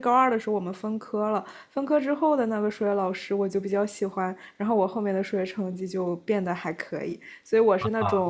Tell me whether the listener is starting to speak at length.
Yes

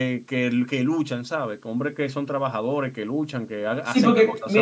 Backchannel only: No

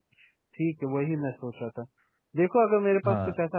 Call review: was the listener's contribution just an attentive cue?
Yes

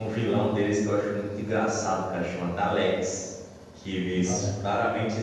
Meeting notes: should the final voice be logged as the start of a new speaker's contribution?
No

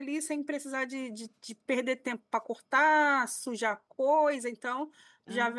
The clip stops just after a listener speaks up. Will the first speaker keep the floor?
Yes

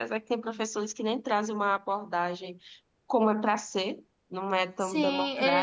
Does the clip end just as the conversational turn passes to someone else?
Yes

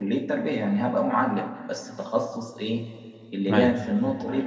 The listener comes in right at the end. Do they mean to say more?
No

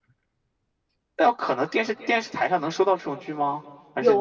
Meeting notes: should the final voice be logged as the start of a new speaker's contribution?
Yes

